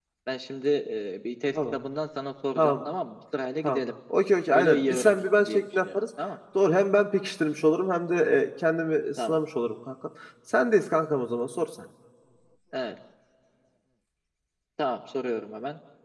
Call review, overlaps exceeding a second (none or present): present